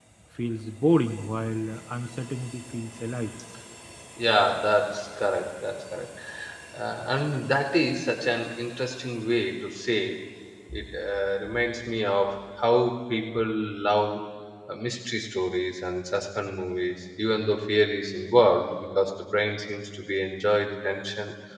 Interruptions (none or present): none